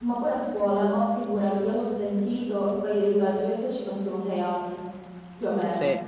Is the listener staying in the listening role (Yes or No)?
Yes